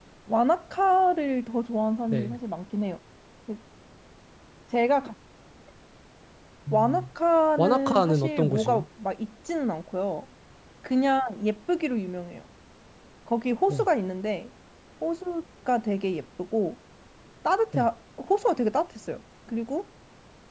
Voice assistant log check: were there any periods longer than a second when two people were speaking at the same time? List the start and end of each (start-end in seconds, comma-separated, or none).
7.6-8.8